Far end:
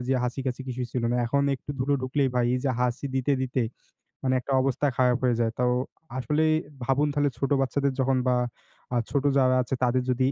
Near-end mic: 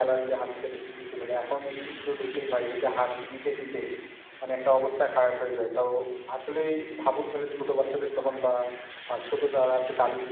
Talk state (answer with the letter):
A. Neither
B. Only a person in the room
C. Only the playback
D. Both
C